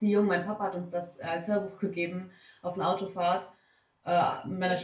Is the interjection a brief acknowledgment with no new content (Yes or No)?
Yes